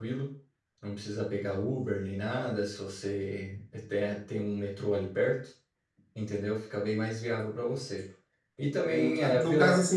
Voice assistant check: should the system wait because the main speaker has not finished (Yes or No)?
No